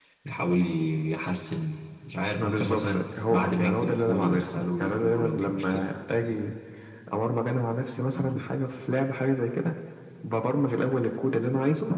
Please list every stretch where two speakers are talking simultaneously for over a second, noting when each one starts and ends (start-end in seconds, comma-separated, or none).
2.4-5.8